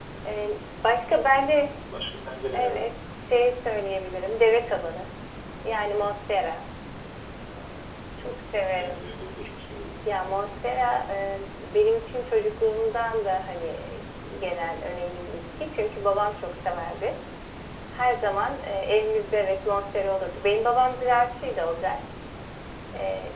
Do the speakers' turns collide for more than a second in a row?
No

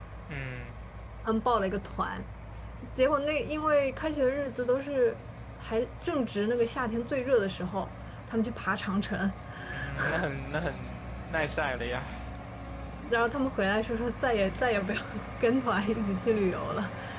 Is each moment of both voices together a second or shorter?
Yes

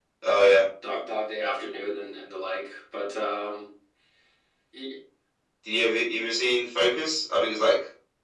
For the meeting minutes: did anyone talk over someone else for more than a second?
No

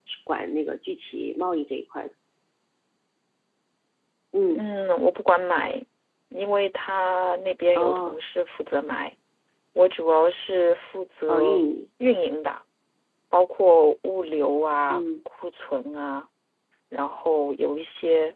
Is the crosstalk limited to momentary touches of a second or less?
Yes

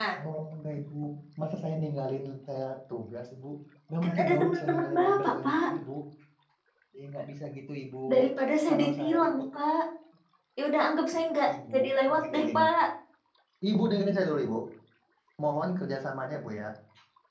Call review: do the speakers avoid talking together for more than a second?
No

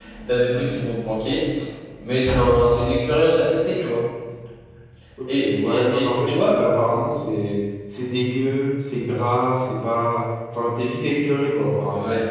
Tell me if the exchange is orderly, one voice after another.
No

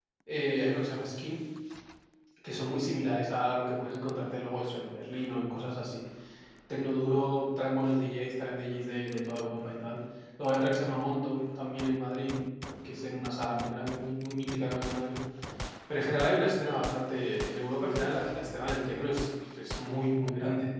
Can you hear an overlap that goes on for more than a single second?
No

